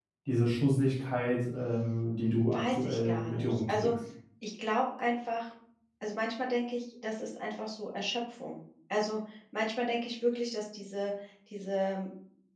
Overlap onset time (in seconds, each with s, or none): 2.5 s